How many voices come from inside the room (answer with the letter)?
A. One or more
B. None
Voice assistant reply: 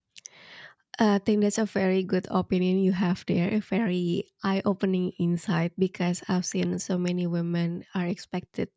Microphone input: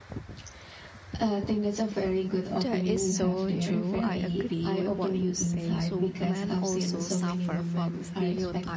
A